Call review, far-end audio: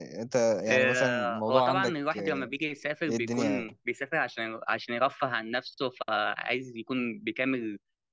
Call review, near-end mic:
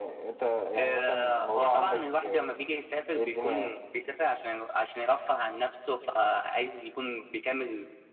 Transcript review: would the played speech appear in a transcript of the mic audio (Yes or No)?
Yes